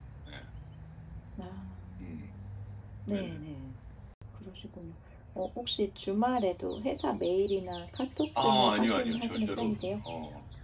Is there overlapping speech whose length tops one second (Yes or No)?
Yes